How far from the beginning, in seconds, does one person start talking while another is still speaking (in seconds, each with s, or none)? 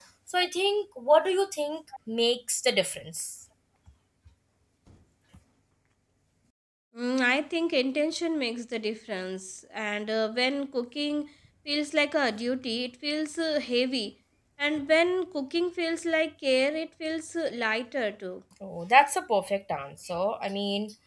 none